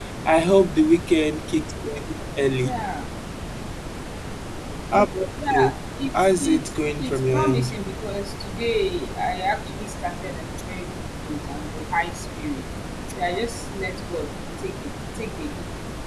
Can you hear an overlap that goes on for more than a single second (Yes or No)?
Yes